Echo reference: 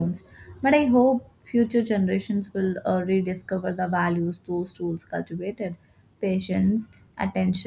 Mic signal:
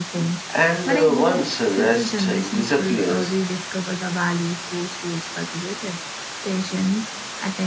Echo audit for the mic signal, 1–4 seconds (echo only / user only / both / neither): both